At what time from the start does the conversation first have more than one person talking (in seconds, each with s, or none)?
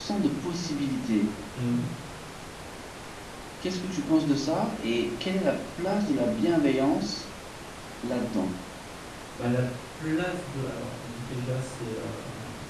none